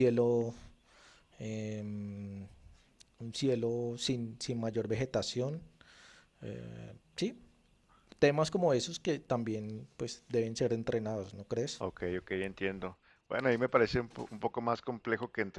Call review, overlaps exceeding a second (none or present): none